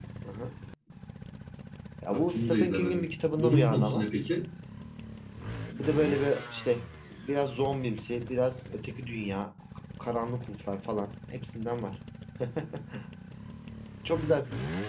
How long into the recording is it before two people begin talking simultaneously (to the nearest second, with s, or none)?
2 s